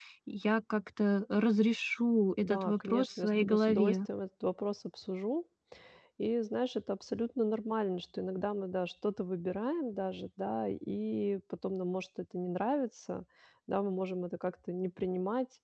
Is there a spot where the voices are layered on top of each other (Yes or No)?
Yes